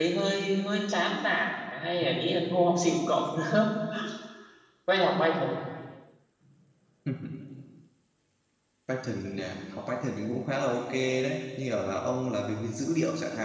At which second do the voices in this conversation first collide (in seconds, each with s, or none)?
none